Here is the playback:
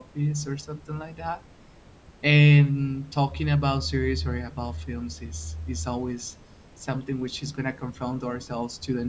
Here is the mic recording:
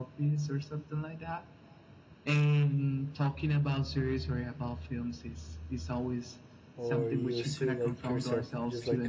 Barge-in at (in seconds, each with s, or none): 6.8 s